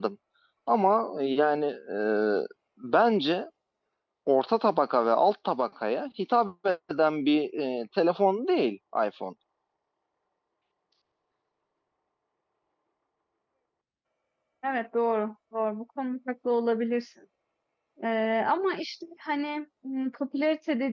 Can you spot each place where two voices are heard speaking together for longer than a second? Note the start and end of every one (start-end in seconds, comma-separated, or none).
none